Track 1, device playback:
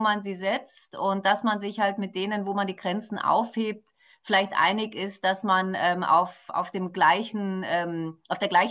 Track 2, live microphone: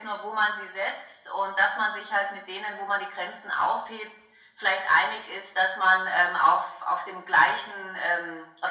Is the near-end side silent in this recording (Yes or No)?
Yes